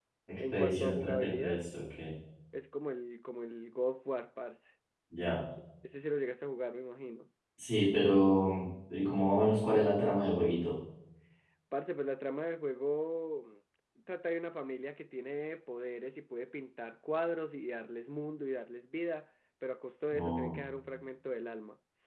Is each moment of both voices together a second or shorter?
No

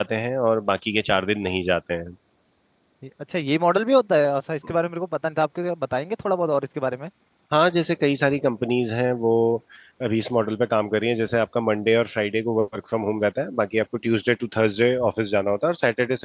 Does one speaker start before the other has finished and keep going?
No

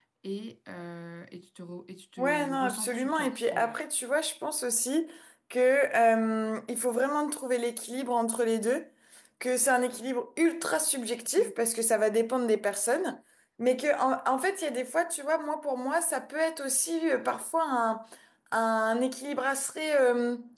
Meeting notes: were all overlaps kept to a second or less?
No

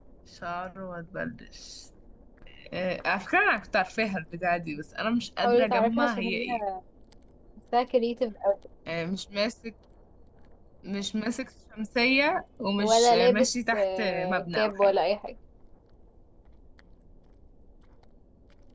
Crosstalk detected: Yes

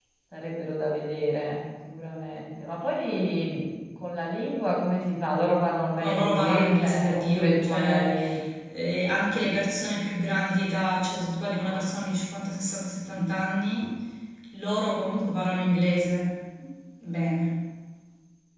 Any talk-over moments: Yes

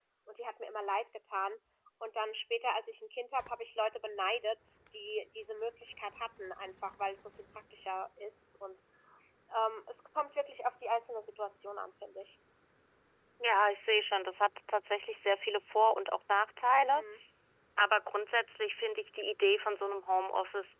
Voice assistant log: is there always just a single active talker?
Yes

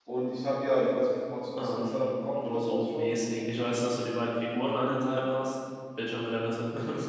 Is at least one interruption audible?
Yes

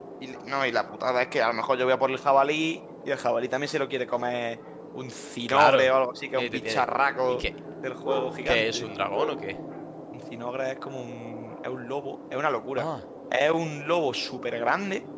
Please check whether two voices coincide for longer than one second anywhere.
No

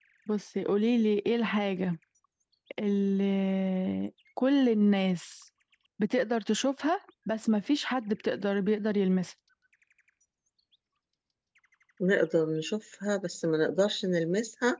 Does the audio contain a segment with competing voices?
No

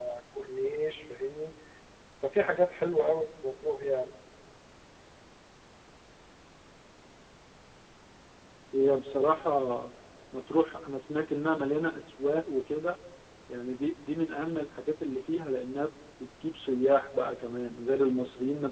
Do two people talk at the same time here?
No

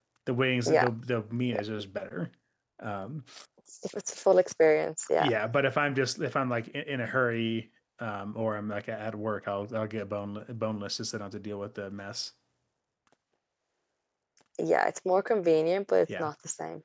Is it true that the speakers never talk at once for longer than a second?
Yes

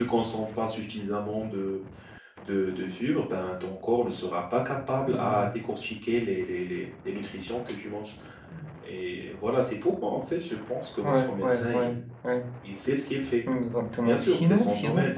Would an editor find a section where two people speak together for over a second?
Yes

